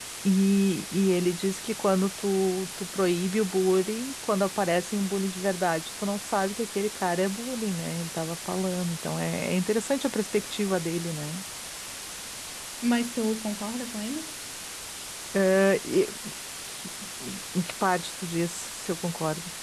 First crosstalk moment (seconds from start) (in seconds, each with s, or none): none